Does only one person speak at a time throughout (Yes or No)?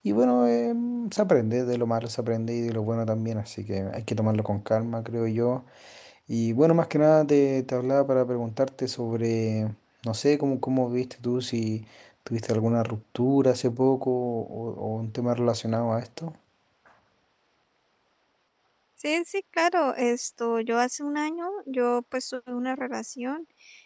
Yes